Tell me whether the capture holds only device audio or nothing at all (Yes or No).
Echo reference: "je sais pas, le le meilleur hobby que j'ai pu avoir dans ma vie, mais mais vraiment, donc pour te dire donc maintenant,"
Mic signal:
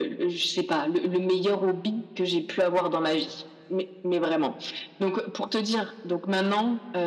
Yes